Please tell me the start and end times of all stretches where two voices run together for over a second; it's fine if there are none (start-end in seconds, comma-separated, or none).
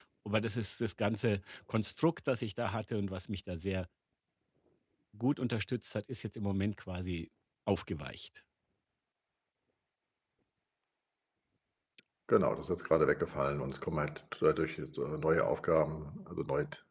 none